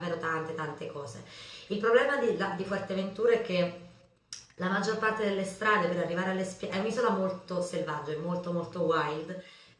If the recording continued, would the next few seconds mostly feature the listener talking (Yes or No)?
No